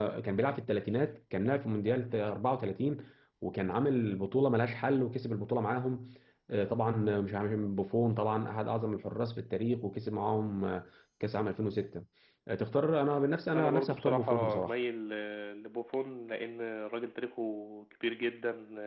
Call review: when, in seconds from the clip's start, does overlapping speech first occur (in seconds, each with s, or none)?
13.5 s